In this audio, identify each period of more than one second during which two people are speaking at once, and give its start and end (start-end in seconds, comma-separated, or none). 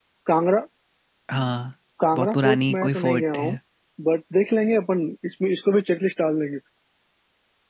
2.1-3.6